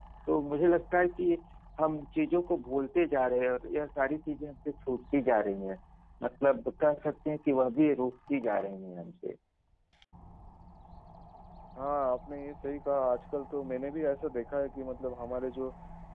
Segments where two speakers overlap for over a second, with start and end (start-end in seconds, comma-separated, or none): none